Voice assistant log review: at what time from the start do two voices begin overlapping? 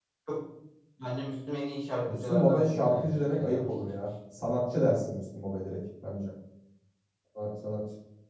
2 s

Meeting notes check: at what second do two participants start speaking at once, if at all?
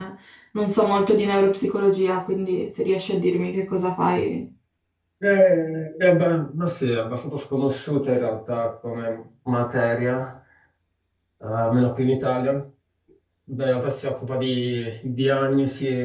none

